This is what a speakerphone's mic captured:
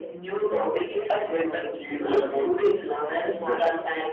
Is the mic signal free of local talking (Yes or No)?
No